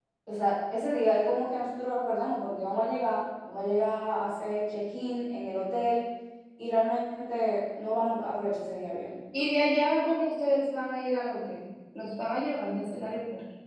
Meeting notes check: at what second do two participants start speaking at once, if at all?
none

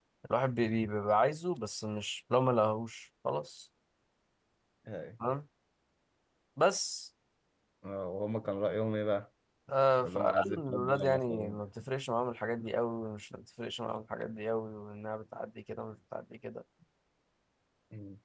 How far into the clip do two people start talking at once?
10.0 s

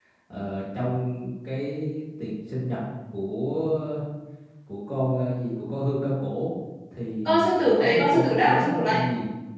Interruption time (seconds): 7.2 s

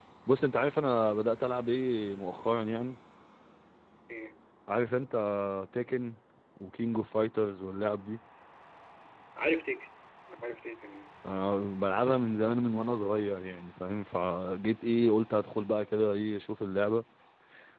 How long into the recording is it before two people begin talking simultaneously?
none

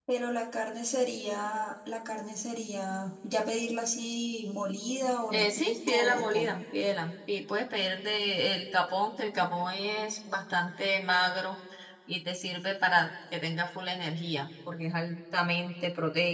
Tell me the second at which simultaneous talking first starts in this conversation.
5.3 s

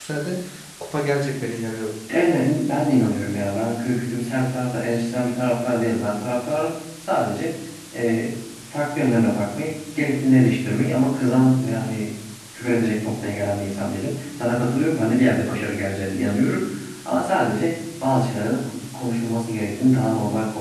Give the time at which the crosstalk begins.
none

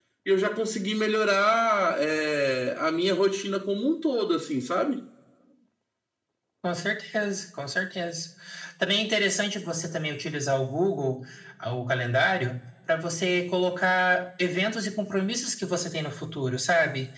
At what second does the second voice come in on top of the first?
none

